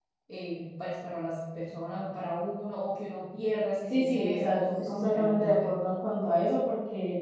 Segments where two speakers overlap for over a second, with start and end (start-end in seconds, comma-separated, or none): 3.9-5.7